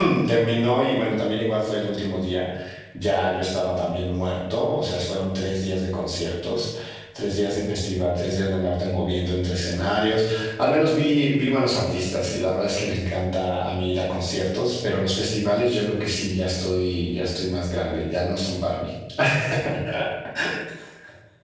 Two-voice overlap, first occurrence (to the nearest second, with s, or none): none